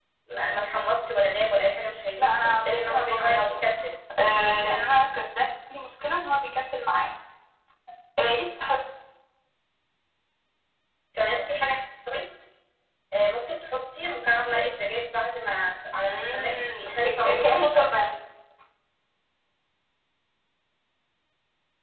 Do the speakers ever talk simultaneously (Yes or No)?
Yes